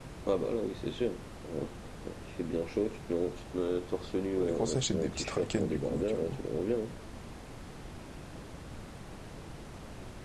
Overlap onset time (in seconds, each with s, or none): 4.4 s